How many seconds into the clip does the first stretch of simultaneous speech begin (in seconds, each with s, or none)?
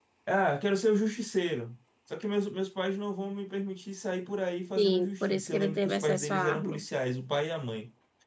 4.8 s